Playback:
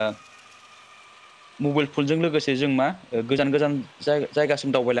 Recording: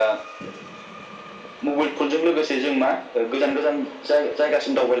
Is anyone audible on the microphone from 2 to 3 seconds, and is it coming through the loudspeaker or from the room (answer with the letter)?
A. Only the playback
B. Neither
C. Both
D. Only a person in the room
A